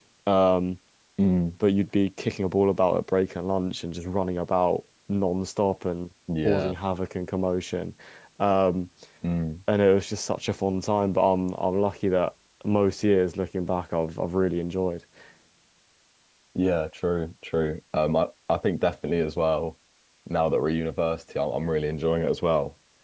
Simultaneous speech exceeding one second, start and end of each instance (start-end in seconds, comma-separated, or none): none